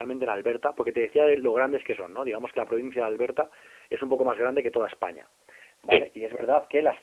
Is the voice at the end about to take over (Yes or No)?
No